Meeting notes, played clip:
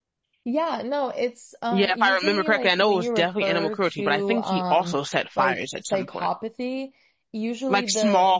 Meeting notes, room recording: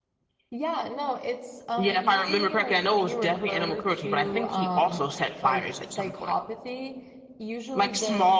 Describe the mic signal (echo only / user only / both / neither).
echo only